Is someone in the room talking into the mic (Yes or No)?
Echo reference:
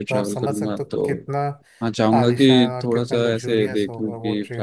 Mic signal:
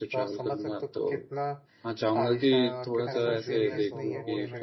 Yes